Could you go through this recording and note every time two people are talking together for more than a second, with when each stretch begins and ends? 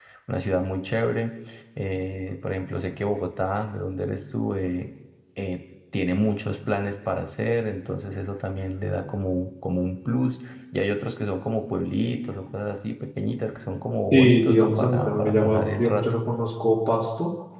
14.1-16.1

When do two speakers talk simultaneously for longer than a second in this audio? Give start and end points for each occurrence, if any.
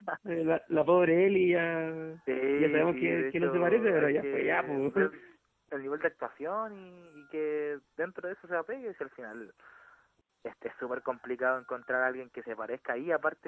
2.6-4.9

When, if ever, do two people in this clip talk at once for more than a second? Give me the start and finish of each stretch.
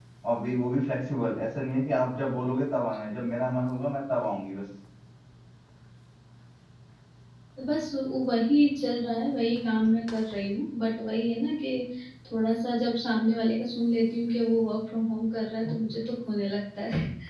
none

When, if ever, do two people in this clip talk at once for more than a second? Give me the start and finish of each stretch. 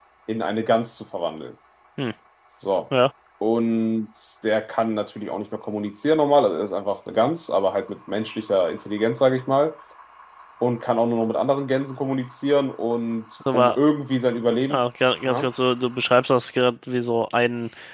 none

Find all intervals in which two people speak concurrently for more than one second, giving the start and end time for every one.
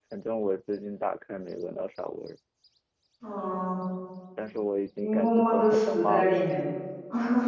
5.0-6.5

